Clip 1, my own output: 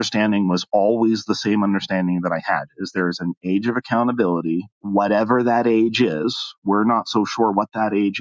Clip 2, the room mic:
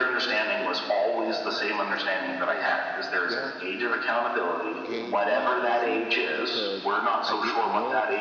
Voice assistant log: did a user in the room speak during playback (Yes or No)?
Yes